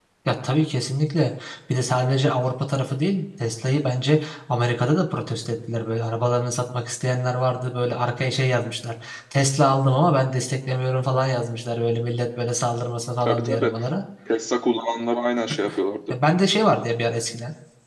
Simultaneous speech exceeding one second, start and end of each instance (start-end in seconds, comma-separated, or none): none